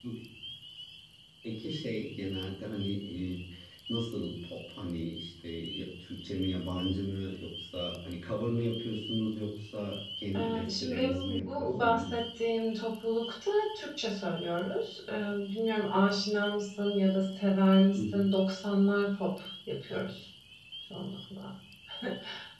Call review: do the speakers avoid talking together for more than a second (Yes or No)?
No